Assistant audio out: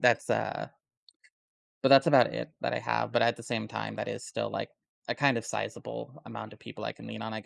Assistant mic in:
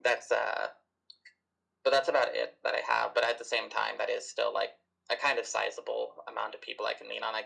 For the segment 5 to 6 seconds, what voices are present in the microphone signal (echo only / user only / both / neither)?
echo only